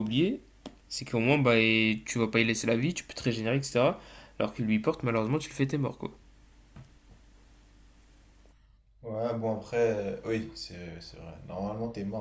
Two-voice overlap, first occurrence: none

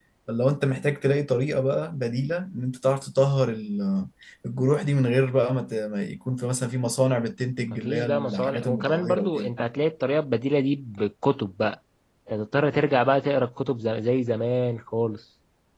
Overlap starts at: 7.6 s

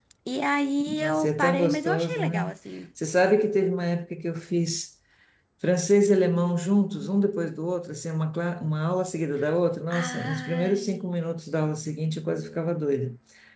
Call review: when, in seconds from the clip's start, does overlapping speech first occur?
1.0 s

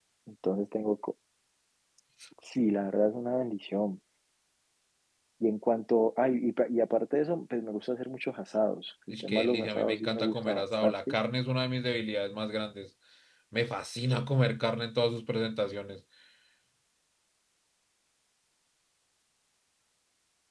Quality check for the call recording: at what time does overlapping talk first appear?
9.1 s

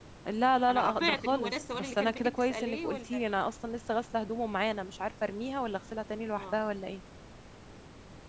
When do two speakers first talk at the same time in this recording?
0.7 s

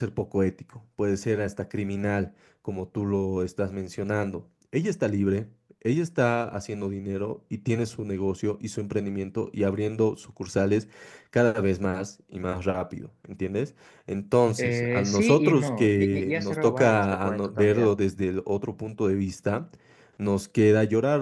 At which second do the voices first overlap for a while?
14.5 s

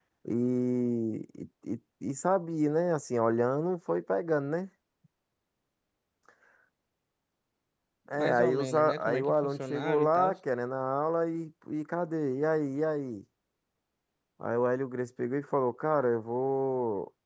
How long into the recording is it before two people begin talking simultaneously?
8.2 s

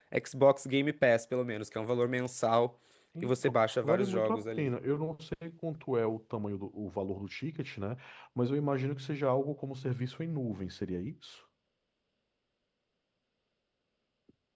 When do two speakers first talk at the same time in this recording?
3.2 s

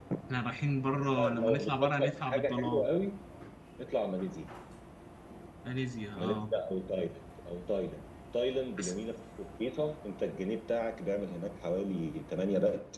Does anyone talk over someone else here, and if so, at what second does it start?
1.2 s

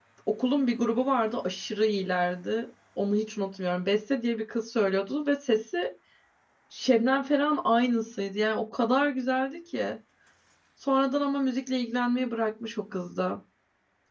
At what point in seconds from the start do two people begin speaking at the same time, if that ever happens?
none

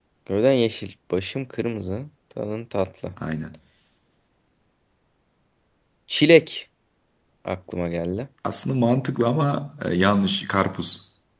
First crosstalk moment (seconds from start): none

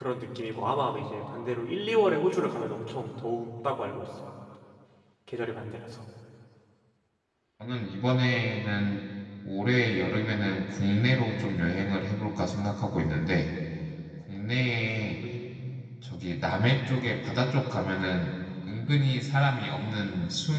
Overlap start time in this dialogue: none

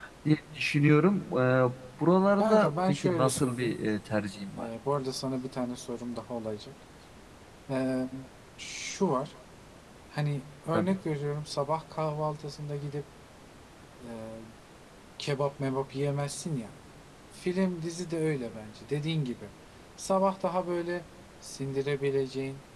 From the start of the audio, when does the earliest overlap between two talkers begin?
2.4 s

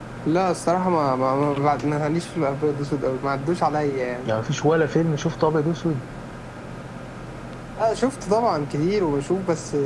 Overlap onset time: none

